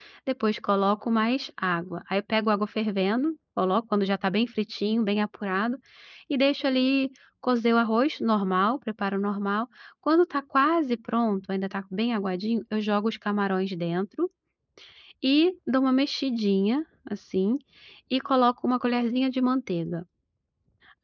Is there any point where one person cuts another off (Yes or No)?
No